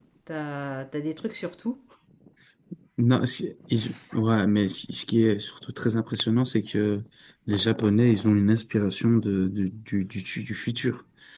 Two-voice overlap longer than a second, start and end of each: none

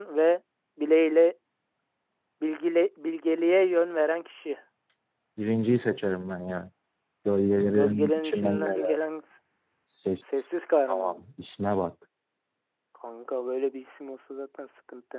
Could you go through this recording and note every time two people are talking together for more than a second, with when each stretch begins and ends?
7.7-9.0

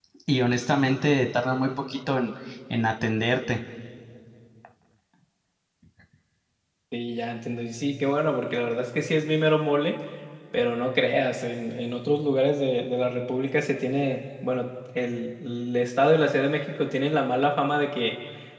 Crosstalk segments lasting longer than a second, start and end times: none

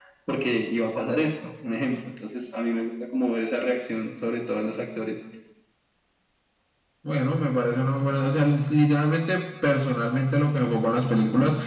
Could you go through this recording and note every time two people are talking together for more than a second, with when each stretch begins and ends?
none

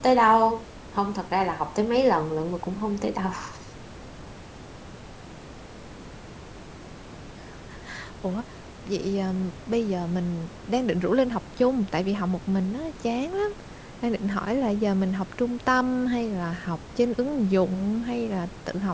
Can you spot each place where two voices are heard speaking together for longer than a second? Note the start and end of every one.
none

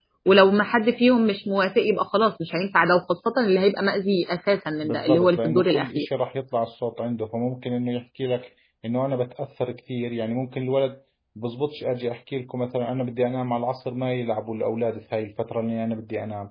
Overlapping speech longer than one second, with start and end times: 4.8-6.0

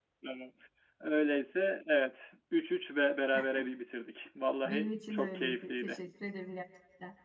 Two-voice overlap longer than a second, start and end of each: 4.6-6.0

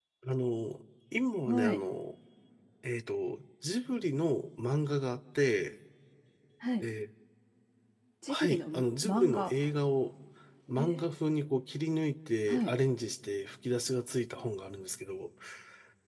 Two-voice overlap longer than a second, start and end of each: 8.3-9.5

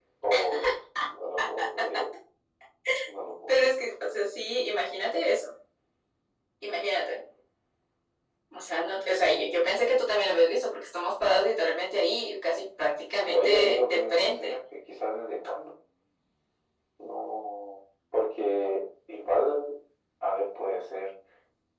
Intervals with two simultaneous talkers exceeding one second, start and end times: 13.3-14.6

